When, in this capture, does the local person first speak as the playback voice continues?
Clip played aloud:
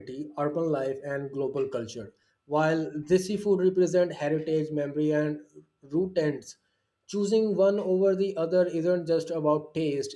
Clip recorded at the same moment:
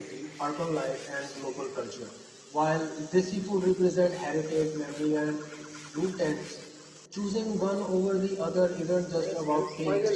9.1 s

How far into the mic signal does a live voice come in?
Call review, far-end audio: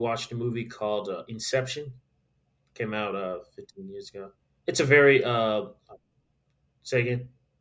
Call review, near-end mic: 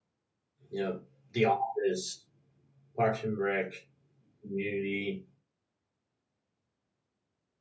0.7 s

